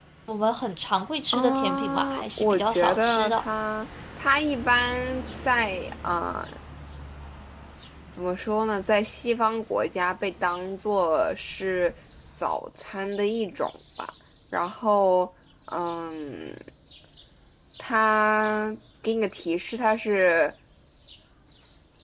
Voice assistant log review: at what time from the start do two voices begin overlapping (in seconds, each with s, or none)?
1.3 s